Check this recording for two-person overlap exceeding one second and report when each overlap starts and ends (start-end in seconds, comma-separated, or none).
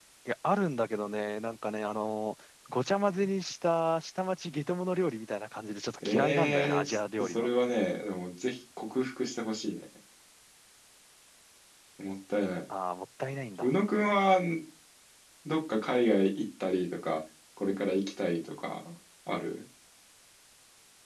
6.0-7.5